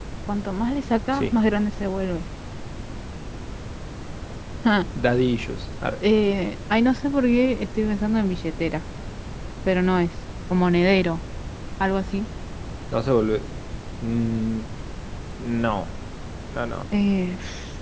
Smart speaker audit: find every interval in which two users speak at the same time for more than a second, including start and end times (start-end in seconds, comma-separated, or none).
none